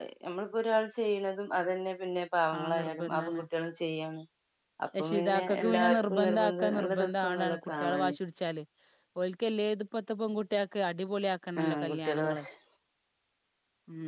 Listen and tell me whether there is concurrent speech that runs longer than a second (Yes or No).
Yes